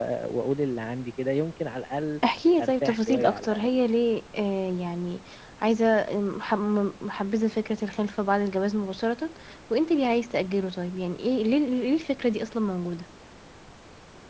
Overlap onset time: 2.6 s

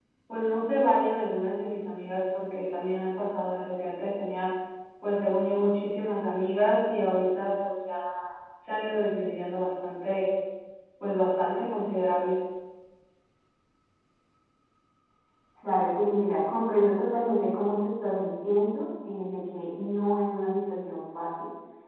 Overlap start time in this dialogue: none

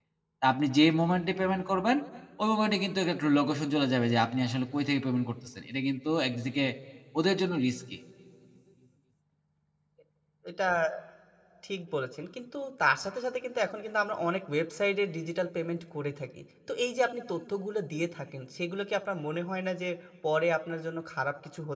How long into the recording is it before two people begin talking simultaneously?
none

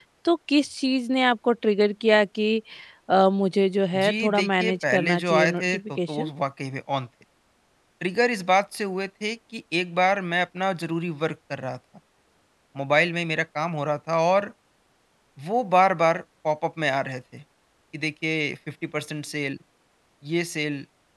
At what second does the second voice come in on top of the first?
3.9 s

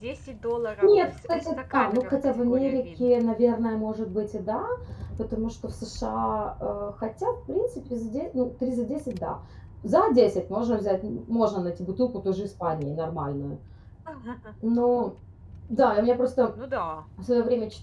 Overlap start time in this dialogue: 0.8 s

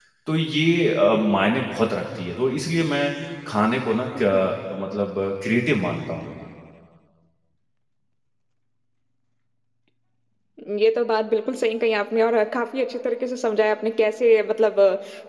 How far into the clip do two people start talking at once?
none

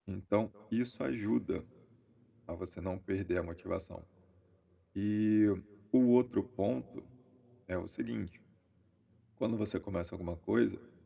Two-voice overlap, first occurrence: none

